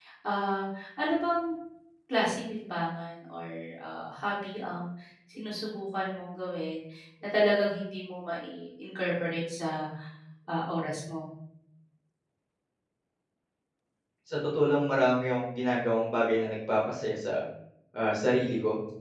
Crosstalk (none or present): none